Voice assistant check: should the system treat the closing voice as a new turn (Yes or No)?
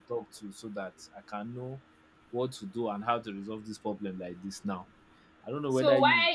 Yes